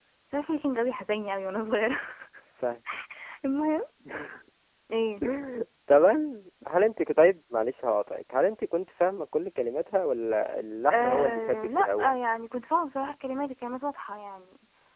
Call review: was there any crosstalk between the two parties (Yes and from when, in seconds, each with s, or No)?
Yes, from 10.9 s